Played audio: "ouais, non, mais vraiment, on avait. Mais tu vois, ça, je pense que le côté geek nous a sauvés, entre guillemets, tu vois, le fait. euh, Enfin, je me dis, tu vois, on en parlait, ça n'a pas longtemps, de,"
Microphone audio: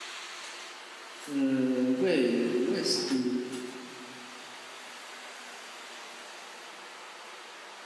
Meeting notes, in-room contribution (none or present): present